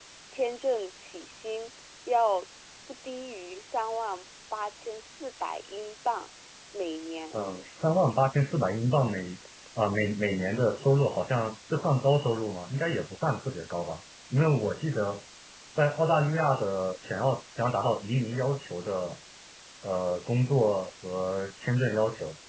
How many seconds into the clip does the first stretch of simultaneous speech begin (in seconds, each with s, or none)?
none